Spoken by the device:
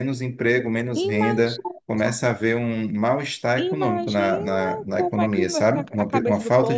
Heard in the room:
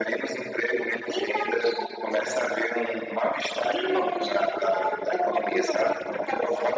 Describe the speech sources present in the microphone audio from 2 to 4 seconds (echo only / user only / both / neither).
echo only